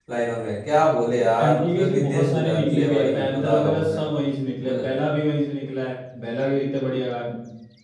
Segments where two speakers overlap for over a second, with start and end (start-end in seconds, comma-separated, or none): 1.4-4.0